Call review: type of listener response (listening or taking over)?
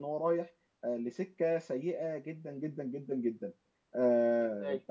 listening